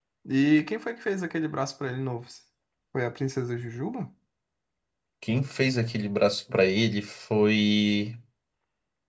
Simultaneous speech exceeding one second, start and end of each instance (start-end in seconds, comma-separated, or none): none